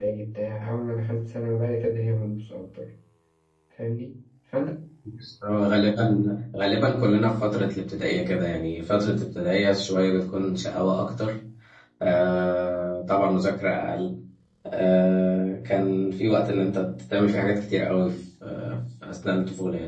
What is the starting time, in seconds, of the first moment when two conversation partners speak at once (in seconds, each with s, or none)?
none